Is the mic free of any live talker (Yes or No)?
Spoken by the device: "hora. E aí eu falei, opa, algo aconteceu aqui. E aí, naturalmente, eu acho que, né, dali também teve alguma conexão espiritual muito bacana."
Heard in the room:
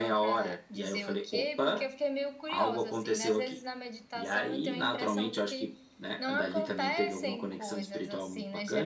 No